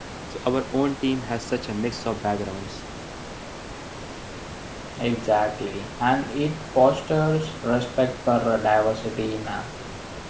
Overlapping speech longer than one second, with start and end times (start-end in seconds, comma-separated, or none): none